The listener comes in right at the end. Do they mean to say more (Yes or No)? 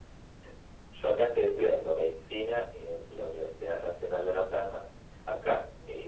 No